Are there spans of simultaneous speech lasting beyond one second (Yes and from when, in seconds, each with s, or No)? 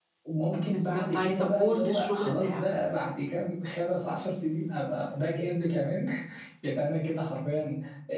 Yes, from 0.6 s